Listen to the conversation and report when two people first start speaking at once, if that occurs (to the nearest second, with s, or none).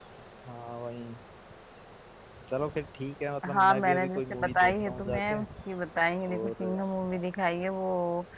4 s